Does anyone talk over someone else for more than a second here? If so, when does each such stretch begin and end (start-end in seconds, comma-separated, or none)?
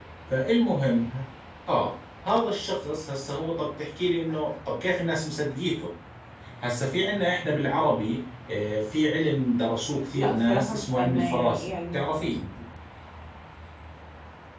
10.2-12.3